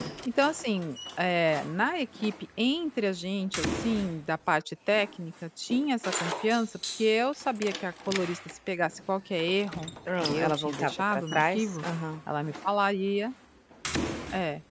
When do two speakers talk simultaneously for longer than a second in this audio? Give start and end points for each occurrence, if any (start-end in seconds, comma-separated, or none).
10.2-11.8